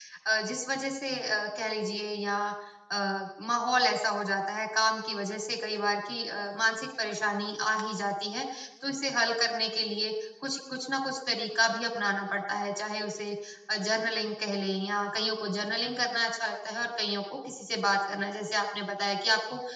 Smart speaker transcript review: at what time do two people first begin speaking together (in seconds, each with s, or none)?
none